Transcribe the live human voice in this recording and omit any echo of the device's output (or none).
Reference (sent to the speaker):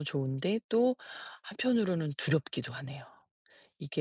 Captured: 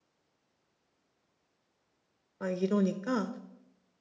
막 이러니까